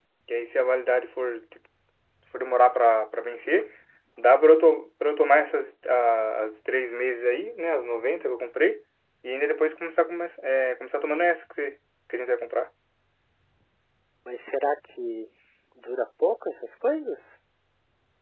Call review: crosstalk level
none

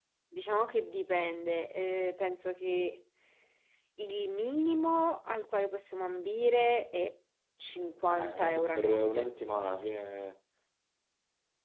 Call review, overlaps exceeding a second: present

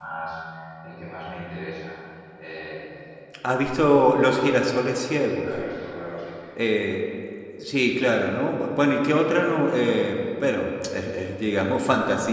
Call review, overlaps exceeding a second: none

